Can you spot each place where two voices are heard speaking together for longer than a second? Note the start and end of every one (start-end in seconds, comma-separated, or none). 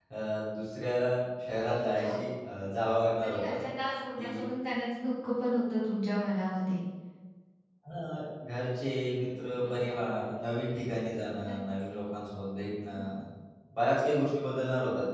none